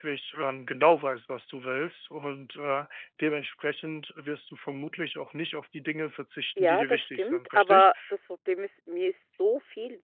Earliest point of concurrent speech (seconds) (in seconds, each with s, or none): 6.6 s